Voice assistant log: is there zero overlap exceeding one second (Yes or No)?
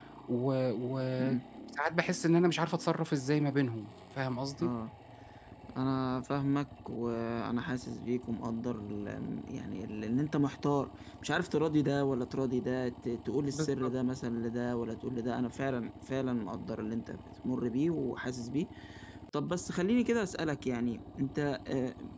Yes